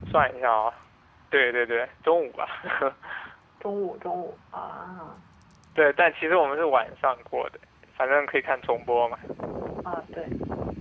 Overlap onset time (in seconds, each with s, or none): none